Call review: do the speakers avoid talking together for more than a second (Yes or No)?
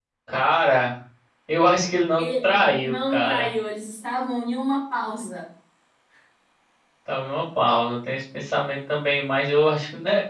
No